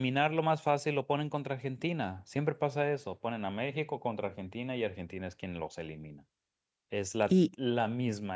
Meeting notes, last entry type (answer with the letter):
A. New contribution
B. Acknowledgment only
B